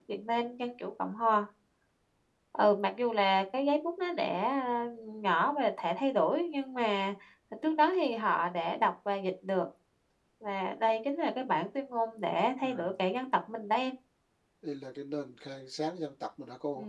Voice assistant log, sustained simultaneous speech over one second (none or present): none